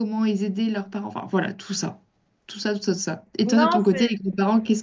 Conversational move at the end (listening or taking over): listening